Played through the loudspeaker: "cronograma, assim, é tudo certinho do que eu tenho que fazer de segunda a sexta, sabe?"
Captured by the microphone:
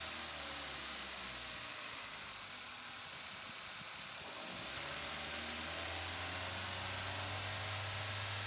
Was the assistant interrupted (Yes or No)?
No